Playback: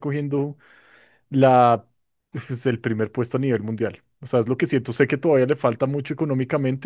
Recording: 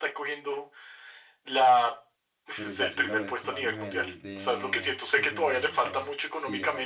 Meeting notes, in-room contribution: present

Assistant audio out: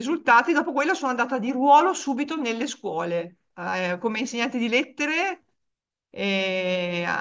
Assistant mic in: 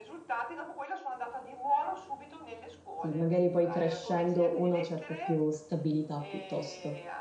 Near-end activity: present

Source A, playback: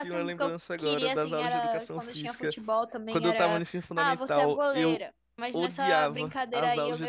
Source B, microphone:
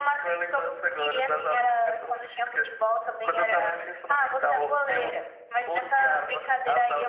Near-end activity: none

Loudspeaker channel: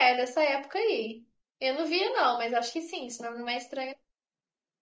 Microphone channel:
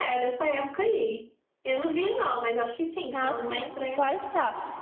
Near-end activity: present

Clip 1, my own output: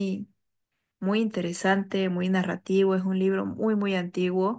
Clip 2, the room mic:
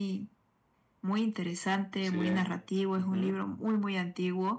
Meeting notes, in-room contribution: present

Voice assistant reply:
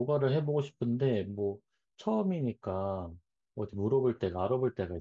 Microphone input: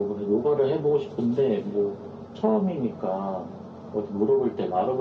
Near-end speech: none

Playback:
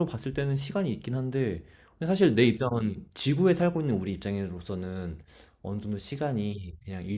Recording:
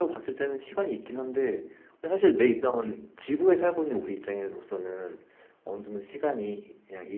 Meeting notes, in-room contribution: none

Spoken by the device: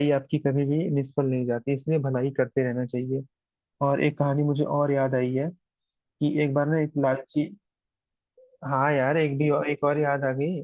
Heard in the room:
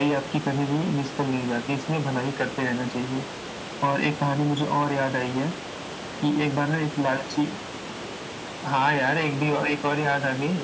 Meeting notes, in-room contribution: none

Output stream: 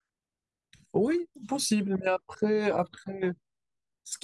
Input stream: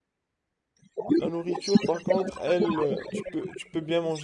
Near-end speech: present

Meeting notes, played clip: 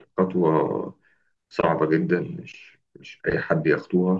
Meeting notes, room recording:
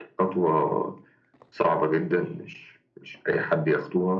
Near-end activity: none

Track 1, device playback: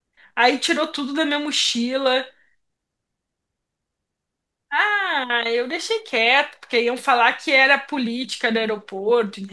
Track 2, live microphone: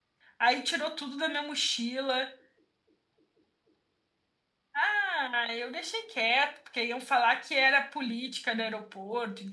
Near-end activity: none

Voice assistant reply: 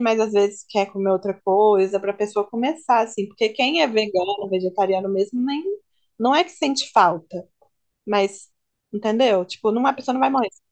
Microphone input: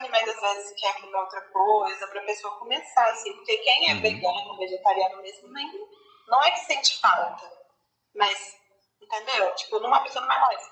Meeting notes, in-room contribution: present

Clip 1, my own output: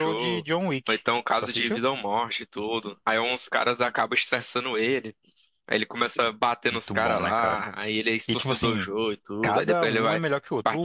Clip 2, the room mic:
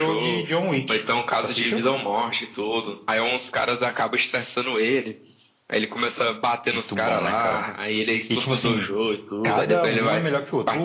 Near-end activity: none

